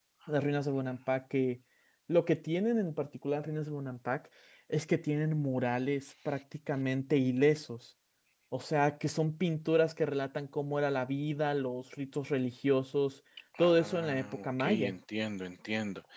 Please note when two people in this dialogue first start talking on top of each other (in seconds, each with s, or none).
13.6 s